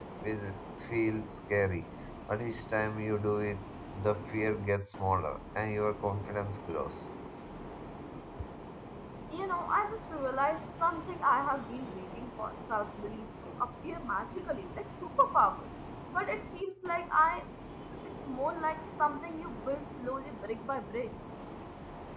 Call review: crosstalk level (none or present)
none